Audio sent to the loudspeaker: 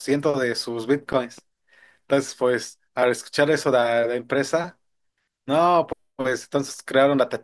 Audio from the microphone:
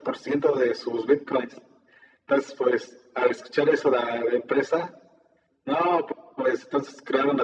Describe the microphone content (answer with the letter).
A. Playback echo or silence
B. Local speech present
A